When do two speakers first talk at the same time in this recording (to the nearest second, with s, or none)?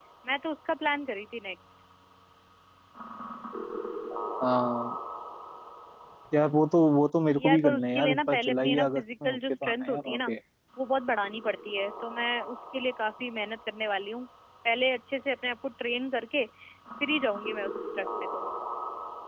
7 s